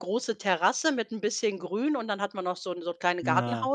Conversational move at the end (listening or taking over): listening